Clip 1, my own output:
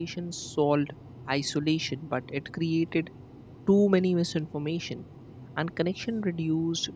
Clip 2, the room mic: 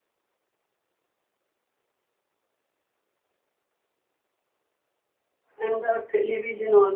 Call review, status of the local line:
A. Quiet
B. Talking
B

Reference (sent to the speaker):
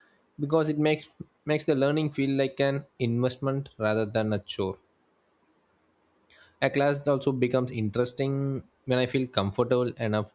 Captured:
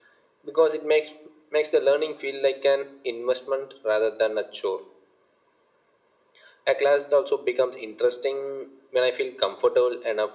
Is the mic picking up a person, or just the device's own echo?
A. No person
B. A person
A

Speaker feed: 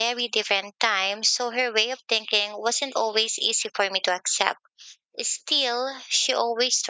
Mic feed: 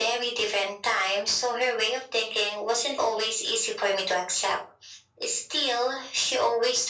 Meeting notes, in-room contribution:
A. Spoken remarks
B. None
B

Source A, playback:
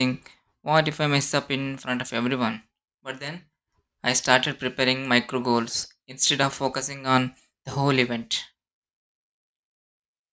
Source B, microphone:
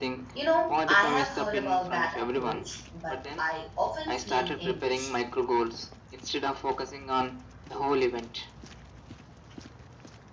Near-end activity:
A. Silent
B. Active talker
B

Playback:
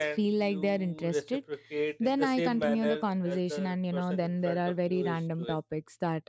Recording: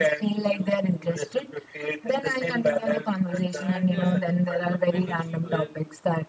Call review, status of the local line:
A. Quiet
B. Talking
B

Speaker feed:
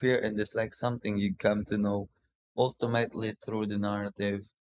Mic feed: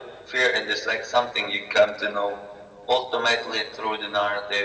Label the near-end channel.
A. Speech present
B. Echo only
B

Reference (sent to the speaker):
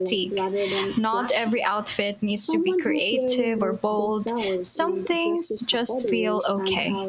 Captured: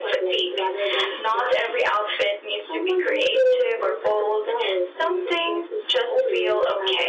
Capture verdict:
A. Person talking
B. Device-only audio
B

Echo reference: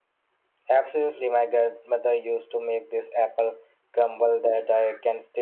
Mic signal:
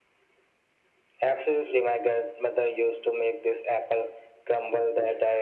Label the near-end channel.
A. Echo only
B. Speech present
A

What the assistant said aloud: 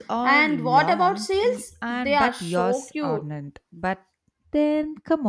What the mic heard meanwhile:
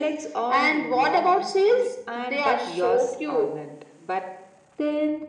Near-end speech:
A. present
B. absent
B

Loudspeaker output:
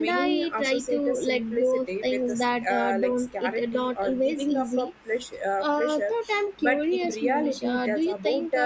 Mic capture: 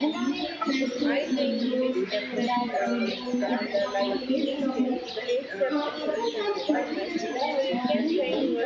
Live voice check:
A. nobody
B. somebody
B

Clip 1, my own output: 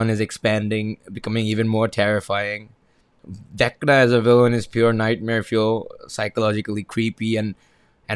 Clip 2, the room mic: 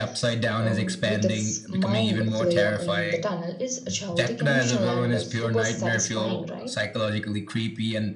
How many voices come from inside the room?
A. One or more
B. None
A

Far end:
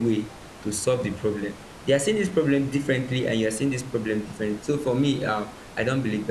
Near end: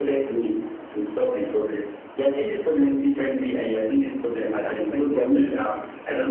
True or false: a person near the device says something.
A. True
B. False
A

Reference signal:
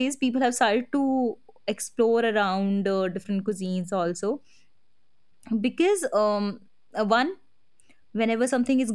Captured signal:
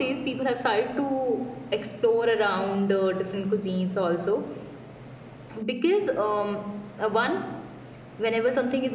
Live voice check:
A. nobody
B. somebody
A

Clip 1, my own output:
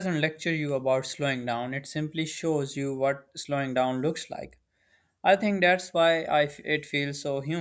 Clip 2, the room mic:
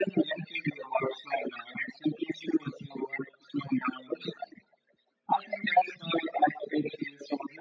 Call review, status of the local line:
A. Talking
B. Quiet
B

